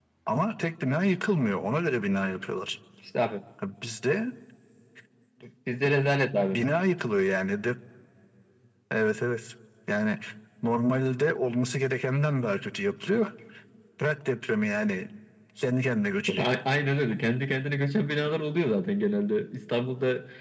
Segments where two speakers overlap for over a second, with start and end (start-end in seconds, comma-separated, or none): none